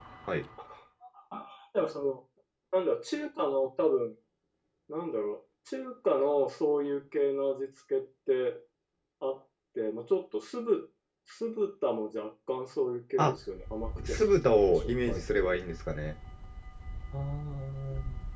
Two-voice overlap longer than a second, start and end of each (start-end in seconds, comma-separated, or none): 14.1-15.6